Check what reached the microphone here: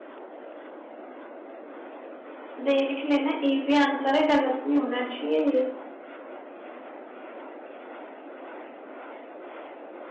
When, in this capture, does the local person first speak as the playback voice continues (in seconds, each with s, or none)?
2.6 s